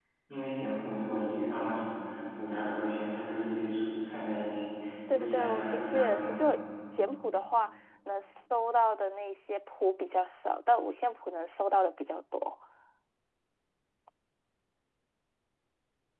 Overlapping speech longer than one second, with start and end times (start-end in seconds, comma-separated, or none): 5.1-6.5